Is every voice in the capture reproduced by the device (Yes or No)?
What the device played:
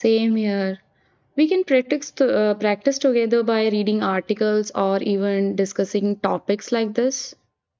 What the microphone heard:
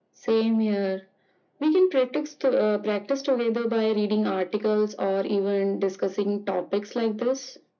Yes